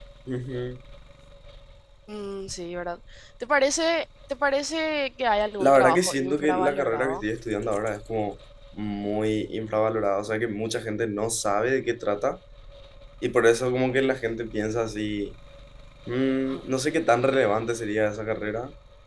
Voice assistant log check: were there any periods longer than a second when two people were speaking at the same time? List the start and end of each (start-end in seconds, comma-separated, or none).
5.6-7.2